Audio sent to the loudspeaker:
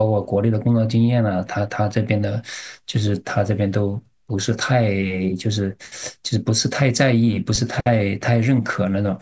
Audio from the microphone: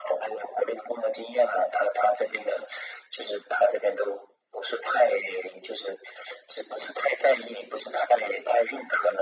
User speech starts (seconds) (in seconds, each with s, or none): none